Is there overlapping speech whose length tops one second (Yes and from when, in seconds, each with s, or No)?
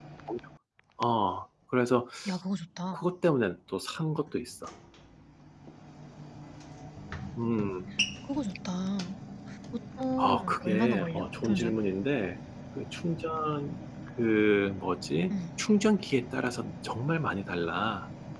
Yes, from 10.2 s